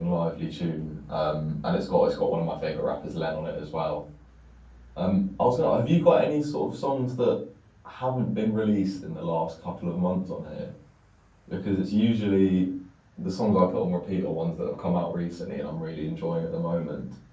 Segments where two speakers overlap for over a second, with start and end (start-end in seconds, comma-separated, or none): none